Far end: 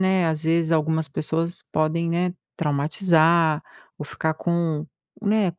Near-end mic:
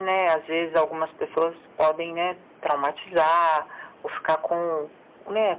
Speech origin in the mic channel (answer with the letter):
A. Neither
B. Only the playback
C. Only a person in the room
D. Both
B